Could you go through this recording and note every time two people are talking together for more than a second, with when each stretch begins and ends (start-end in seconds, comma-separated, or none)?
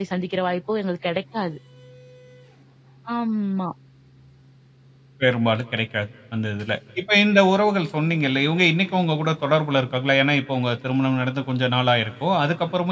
none